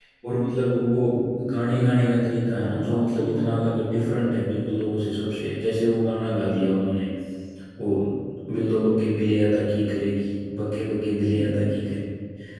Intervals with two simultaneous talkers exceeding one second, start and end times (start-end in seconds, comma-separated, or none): 2.6-4.1